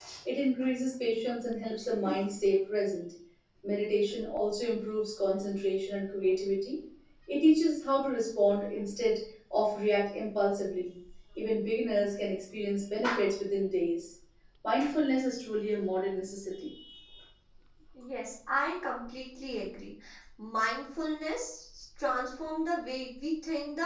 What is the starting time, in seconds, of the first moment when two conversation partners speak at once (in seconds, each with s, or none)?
none